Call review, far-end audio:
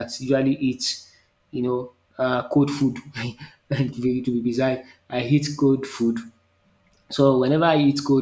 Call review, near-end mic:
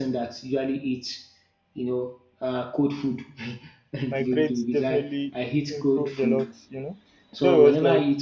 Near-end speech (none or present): present